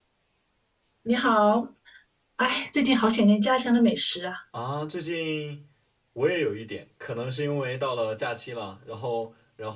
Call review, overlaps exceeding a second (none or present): none